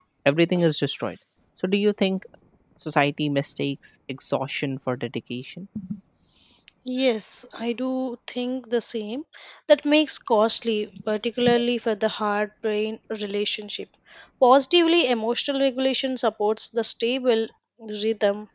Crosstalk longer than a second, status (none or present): none